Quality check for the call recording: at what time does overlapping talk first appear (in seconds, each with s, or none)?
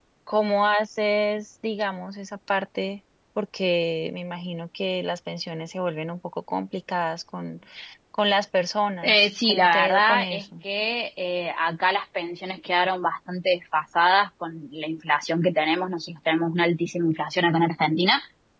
9.0 s